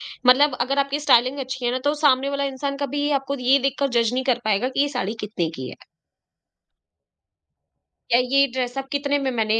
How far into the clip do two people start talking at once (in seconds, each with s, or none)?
none